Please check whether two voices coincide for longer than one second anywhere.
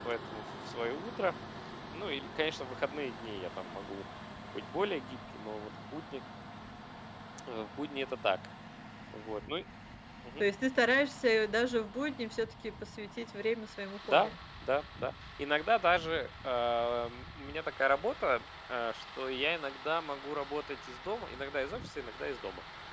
No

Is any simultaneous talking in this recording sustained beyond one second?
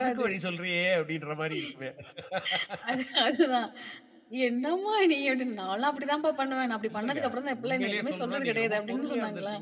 Yes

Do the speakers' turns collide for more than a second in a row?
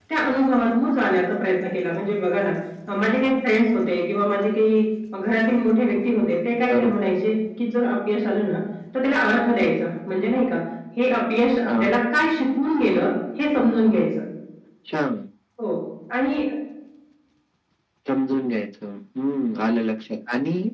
No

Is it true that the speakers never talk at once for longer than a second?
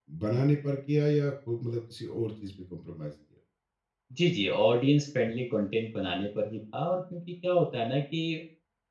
Yes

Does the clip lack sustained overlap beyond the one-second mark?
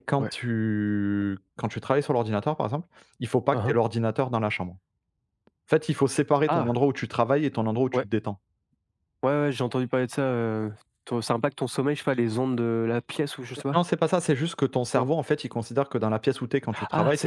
Yes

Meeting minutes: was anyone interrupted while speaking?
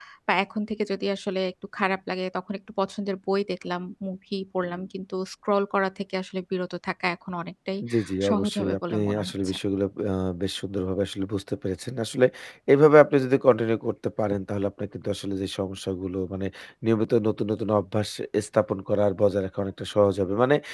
Yes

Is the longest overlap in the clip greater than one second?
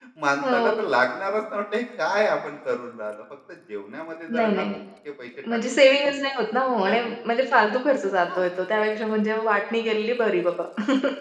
No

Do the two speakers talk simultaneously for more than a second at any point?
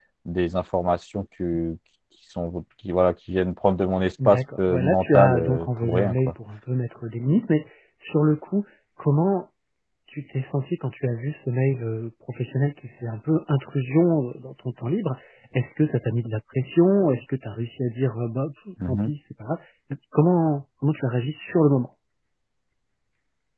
Yes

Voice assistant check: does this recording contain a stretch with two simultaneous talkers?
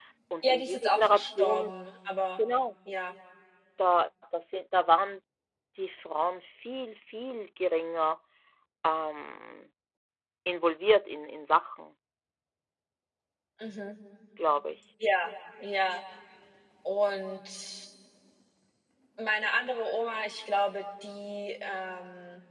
Yes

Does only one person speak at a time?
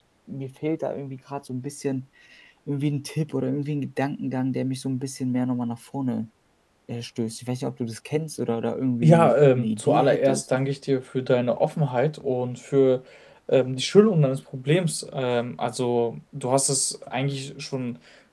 No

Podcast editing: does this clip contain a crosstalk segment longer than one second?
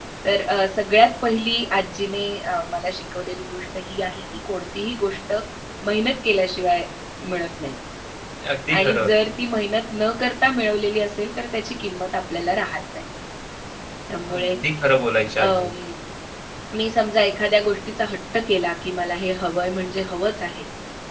No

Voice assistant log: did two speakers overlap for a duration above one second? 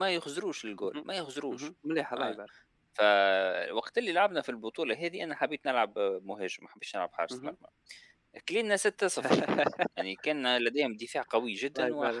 No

